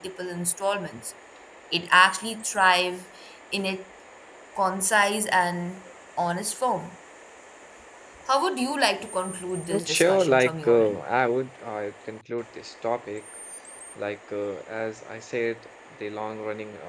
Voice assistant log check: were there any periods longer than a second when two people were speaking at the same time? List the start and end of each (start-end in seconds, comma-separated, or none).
9.7-11.0